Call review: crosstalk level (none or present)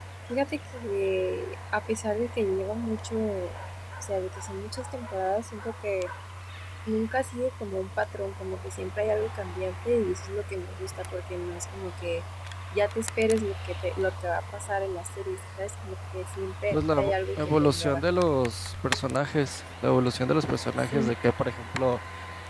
present